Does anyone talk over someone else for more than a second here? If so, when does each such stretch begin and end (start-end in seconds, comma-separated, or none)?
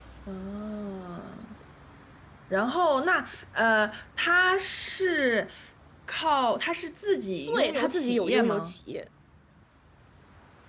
7.5-8.7